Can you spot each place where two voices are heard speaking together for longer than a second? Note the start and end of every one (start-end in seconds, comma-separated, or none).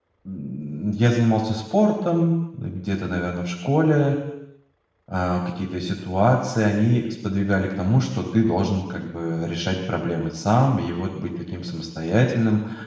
none